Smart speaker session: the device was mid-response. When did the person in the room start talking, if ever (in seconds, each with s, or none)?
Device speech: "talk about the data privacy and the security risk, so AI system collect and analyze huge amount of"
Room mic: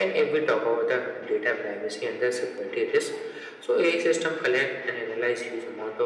none